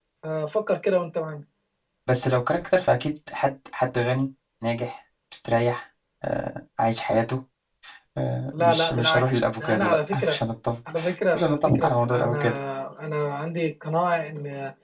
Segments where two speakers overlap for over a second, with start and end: 8.5-10.4, 11.3-12.6

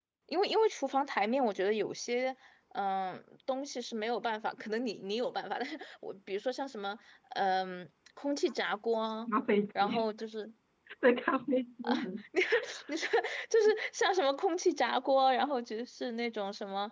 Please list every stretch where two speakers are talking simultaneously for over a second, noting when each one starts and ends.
none

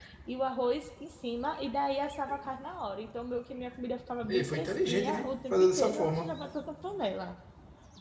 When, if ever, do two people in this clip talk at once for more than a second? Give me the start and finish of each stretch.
4.3-6.4

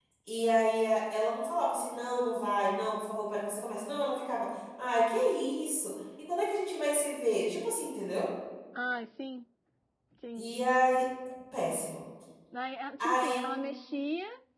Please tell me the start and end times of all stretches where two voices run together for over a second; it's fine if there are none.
none

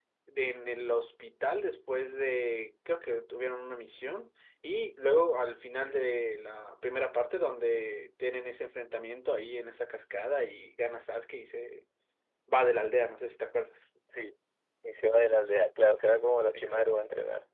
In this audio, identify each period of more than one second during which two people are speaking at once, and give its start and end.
none

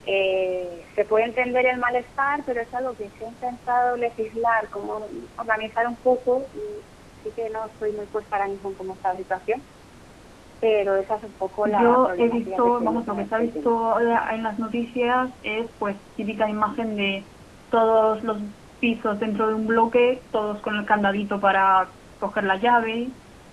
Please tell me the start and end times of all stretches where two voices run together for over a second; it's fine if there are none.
11.7-13.7

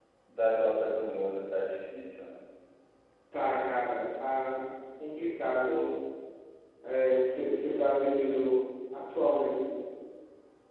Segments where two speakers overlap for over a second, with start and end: none

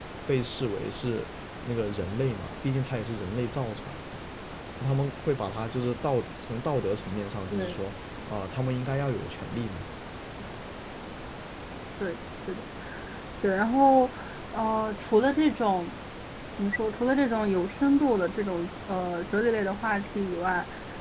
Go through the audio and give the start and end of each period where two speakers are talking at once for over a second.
none

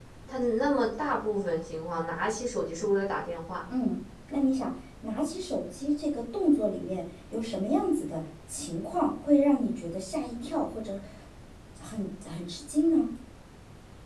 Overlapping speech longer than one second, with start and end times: none

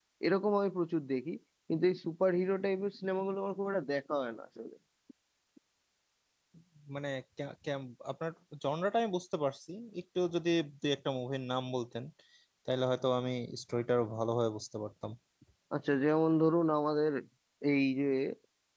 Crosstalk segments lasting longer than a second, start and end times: none

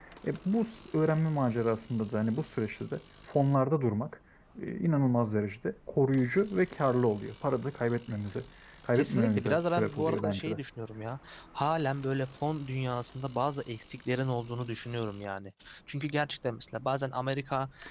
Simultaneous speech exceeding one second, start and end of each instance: 8.9-10.6

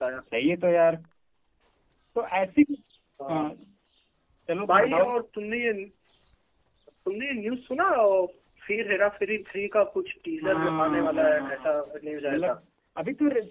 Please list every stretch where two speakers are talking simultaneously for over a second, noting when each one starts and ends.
10.4-12.5

